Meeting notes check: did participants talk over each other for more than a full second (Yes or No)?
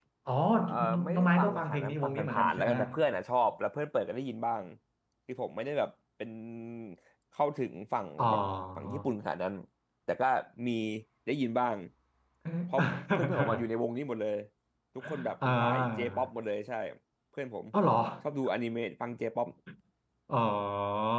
Yes